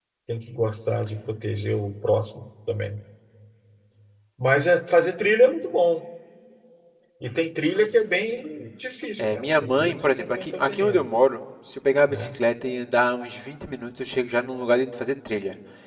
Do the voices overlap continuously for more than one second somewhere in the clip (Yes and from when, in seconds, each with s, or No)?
Yes, from 9.2 s